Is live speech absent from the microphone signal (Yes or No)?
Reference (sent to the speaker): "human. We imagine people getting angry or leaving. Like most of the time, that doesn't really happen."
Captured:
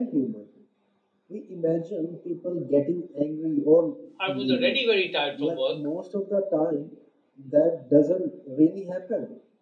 No